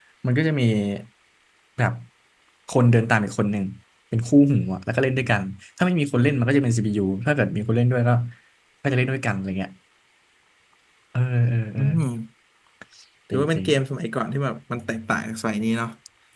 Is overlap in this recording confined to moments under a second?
Yes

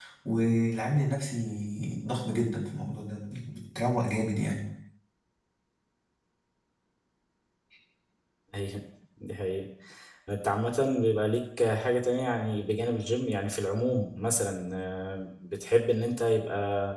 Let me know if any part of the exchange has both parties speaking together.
No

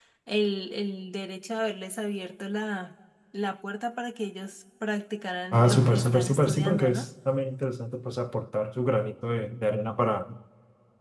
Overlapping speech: Yes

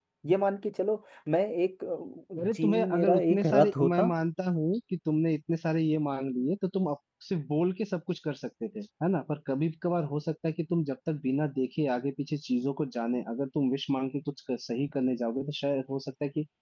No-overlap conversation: No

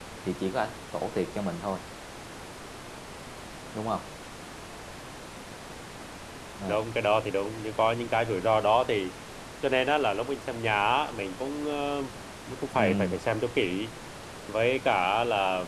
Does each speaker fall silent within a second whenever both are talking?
Yes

